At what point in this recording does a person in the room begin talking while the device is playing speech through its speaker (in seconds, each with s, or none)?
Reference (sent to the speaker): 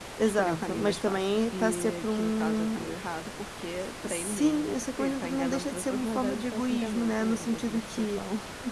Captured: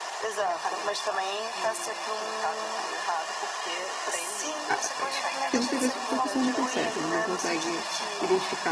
4.7 s